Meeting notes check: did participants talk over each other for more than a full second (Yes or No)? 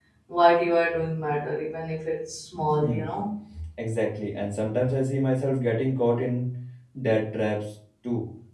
No